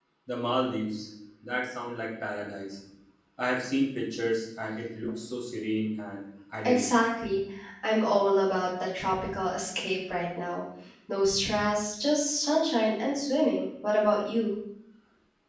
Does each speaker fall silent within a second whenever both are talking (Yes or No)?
Yes